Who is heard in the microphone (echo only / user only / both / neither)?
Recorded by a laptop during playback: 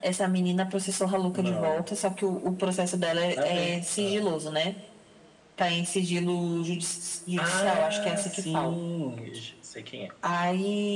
echo only